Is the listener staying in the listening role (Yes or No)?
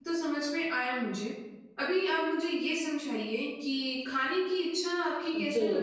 Yes